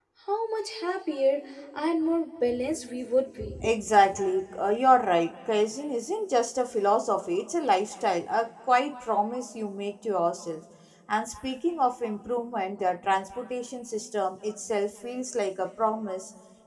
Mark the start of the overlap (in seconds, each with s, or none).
none